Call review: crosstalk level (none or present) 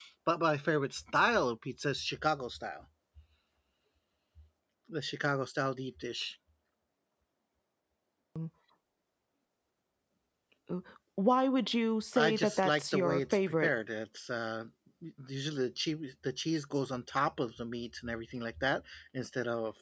present